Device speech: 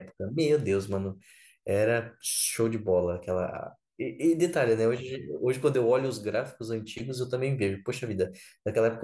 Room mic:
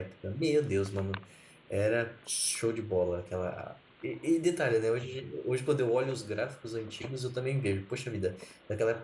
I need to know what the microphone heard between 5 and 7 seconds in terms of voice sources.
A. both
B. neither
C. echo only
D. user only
C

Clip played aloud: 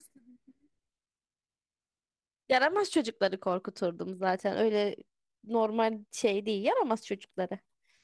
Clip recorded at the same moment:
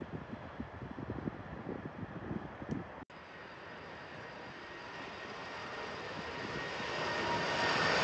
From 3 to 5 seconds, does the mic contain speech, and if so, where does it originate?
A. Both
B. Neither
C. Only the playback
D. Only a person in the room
B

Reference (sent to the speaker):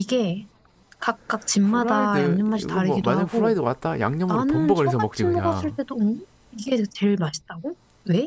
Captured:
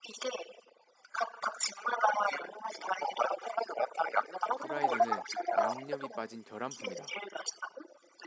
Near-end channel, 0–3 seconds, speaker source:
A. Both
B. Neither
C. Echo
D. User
C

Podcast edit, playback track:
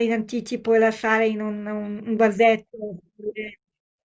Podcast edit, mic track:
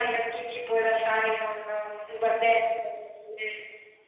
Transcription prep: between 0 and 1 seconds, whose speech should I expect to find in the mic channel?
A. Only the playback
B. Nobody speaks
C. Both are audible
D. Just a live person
A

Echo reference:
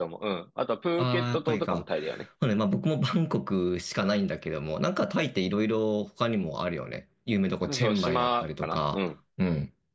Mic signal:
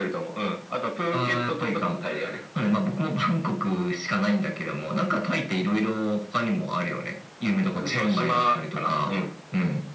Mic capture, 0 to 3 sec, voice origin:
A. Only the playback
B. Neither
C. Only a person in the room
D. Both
A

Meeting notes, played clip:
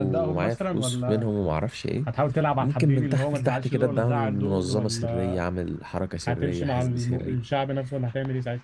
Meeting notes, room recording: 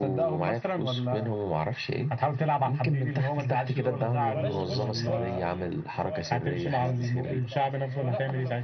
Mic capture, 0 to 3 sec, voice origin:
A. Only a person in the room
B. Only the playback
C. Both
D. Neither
B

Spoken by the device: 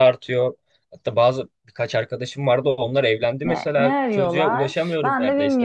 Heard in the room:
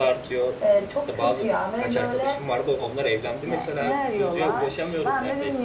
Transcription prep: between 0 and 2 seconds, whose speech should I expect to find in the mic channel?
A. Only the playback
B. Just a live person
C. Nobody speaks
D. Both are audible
D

